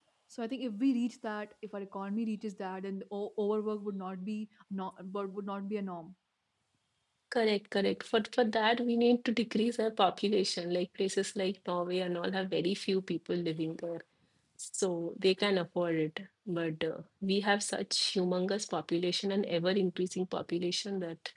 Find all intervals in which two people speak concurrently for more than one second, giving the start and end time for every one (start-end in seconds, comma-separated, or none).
none